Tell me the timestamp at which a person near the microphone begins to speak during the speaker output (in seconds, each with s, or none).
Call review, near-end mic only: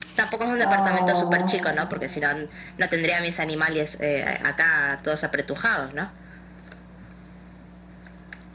0.6 s